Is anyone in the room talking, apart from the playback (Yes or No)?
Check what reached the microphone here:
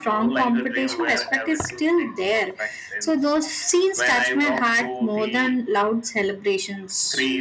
No